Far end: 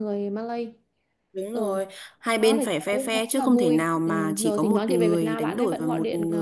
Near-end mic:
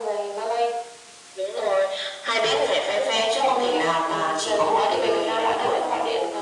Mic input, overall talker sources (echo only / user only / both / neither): echo only